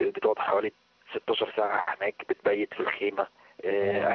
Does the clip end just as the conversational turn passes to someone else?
No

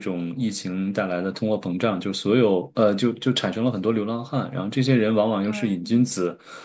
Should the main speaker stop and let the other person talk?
No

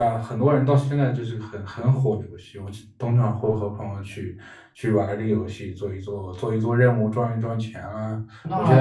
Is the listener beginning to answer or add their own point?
Yes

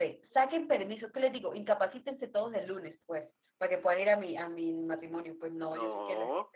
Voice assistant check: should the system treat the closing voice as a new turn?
No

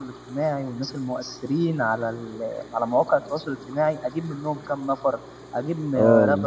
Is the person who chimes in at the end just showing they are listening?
Yes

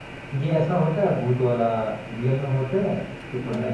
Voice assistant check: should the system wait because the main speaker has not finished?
No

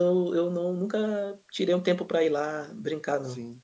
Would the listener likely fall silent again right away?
No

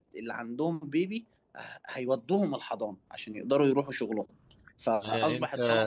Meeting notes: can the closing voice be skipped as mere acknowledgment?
No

